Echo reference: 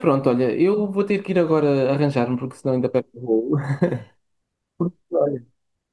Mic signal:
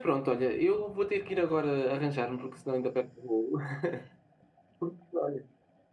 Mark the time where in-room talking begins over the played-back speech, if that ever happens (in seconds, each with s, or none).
none